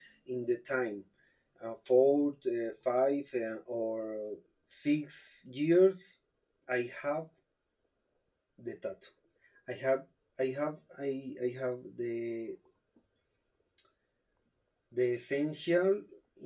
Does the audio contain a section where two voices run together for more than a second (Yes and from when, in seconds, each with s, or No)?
No